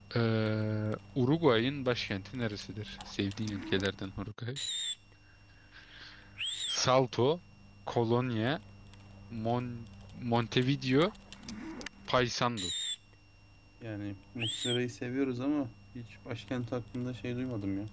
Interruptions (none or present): none